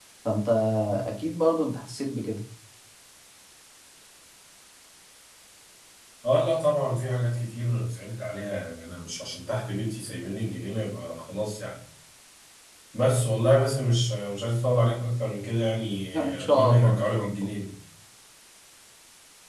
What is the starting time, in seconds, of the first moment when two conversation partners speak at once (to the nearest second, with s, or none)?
16 s